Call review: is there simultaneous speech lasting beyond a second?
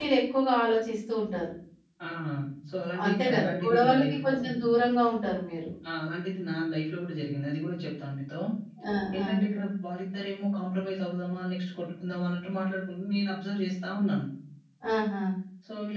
Yes, from 3.0 s

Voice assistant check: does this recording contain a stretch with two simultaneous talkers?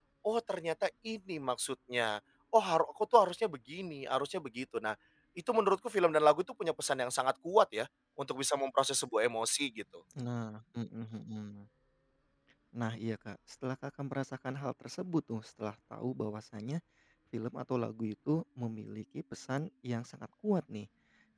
No

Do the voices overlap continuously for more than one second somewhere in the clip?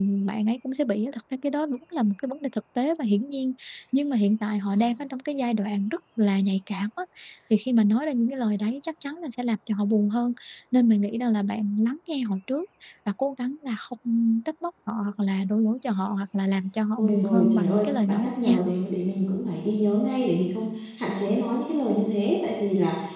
Yes, from 17.0 s

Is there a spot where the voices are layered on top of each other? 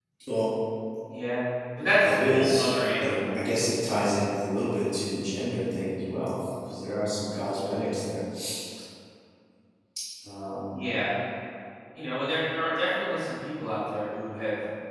Yes, from 2.0 s

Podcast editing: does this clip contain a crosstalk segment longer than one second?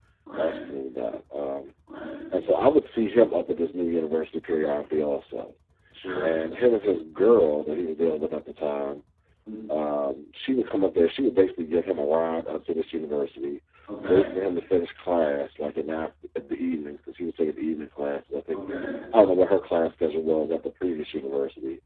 No

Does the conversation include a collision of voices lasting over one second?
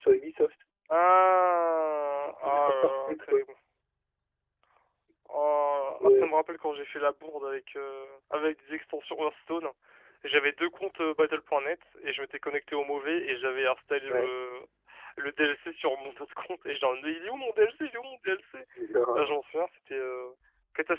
Yes, from 2.1 s

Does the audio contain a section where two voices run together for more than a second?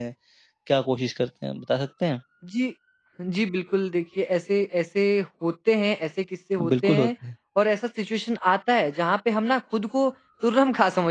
No

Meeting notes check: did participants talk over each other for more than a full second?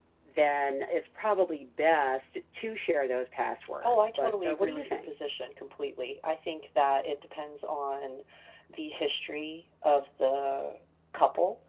Yes, from 3.8 s

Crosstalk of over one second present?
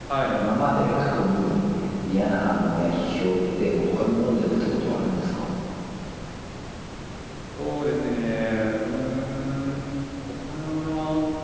No

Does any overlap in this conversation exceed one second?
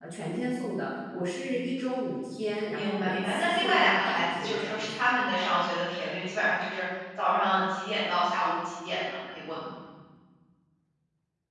Yes, from 2.6 s

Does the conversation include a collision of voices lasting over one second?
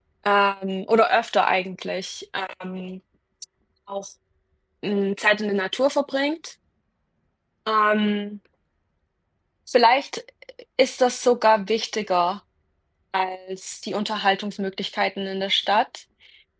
No

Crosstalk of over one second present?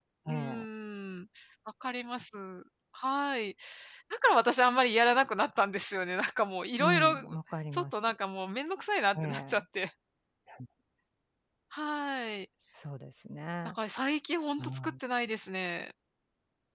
No

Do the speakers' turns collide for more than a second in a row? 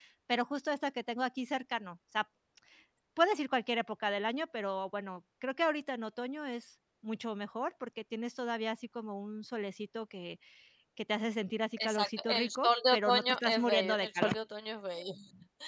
Yes, from 11.8 s

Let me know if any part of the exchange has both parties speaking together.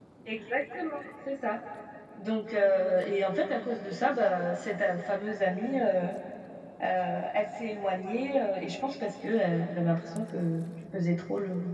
No

